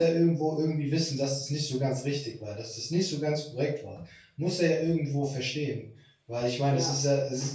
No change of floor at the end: Yes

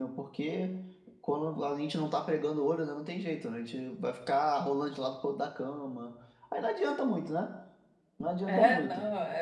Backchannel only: No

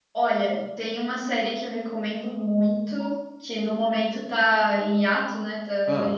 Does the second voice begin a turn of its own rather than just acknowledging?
No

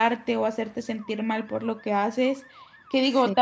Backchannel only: Yes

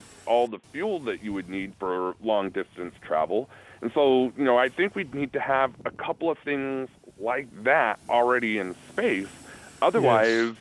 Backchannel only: Yes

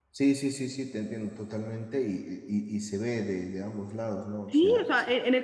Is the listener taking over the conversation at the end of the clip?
Yes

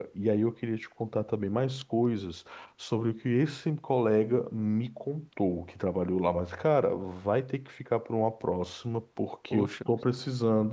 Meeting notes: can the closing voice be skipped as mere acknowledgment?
Yes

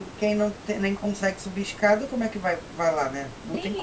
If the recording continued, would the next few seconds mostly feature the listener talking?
Yes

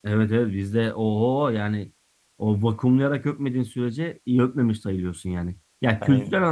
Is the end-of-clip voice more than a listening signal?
No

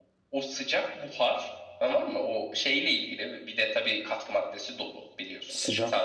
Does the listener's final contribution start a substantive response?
Yes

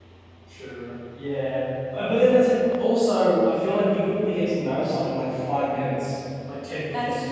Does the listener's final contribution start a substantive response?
No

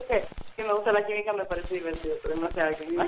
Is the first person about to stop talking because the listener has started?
Yes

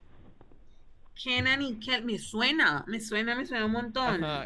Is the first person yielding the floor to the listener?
Yes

